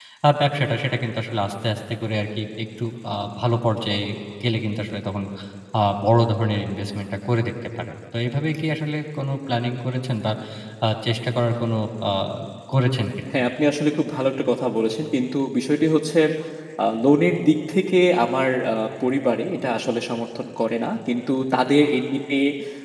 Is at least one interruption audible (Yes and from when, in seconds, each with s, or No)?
No